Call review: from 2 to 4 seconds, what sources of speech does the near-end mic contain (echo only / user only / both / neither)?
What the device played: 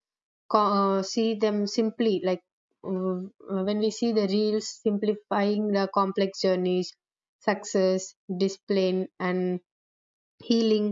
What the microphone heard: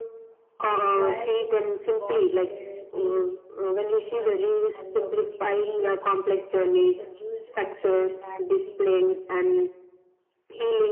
both